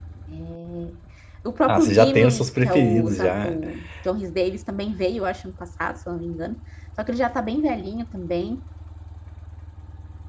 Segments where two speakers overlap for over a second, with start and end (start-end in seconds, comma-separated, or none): 1.7-3.6